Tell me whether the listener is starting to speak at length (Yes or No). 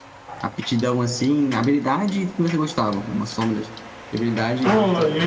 Yes